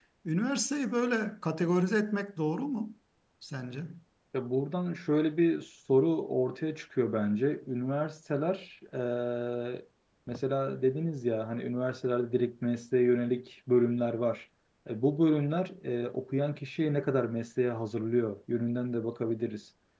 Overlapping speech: No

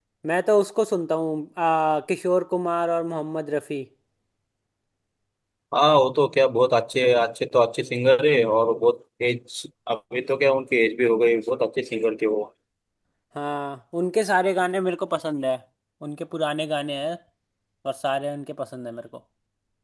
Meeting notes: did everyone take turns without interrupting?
Yes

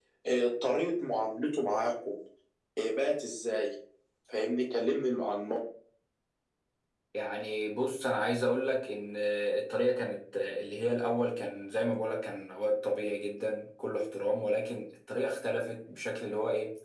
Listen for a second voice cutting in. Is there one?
No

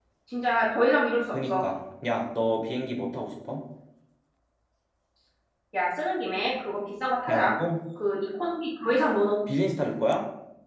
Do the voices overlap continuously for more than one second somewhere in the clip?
No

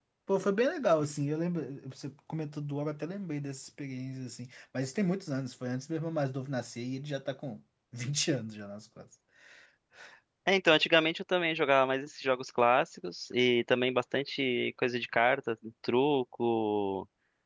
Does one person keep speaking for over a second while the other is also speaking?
No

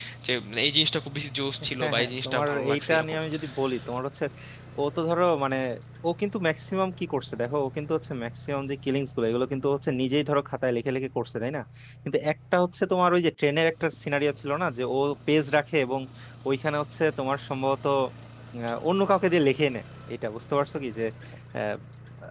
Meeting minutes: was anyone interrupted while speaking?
Yes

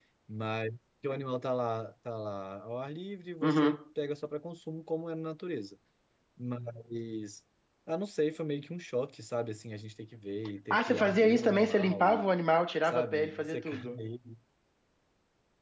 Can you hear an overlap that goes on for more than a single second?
Yes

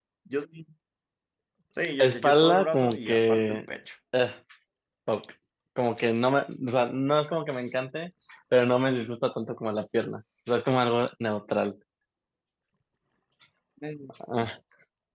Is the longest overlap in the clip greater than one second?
Yes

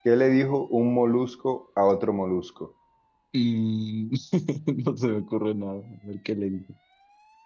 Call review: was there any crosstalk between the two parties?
No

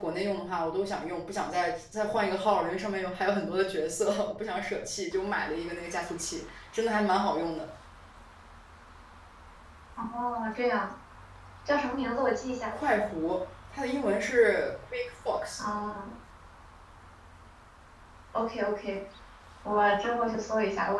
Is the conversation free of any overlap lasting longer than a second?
Yes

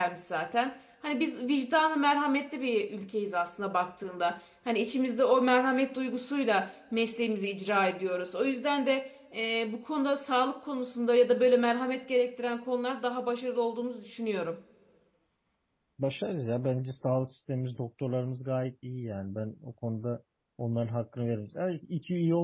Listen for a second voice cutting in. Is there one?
No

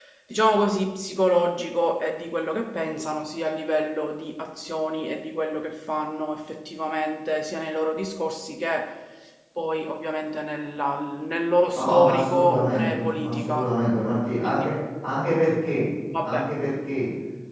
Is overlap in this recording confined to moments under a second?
No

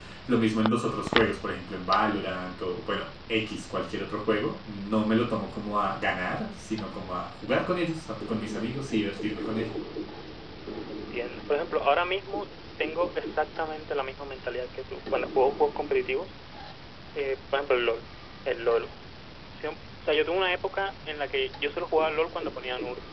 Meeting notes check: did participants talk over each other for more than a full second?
No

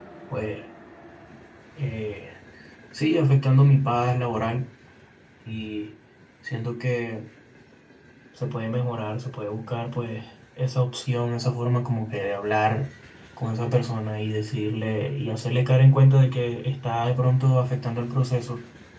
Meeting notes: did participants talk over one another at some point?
No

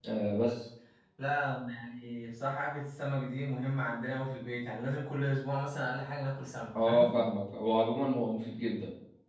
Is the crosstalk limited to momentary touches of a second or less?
Yes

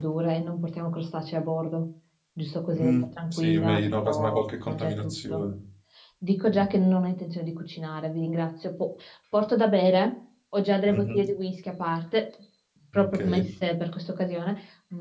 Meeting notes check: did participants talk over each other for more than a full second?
Yes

